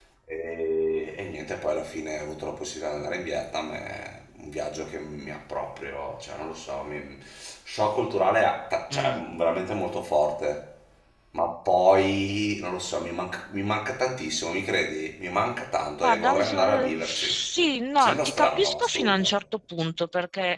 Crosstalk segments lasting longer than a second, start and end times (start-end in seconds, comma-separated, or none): 16.0-17.3, 18.0-19.3